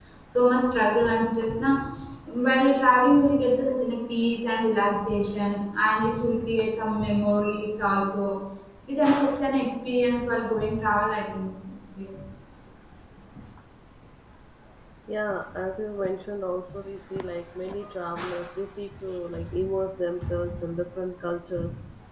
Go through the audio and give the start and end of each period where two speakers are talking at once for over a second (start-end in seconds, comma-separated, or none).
none